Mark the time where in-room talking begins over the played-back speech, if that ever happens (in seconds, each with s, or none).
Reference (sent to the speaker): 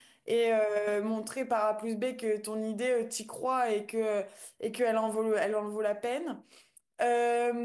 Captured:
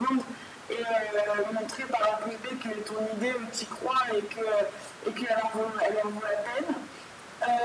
none